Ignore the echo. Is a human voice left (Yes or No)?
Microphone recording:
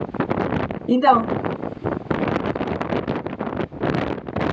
Yes